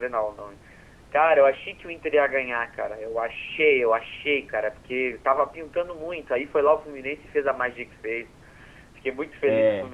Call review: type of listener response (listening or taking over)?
listening